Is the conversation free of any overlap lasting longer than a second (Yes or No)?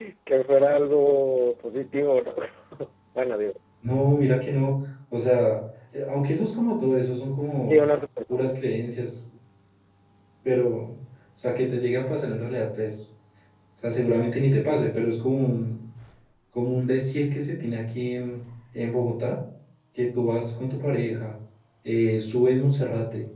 Yes